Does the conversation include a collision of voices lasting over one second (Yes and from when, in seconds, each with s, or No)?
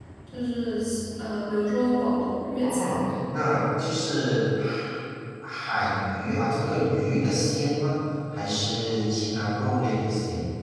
No